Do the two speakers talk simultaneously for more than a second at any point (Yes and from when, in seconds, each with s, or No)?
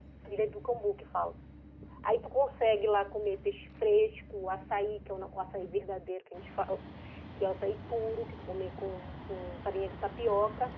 No